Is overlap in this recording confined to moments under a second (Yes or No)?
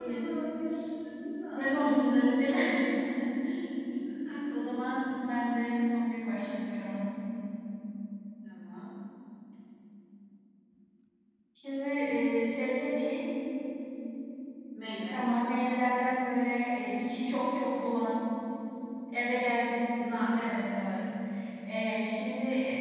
Yes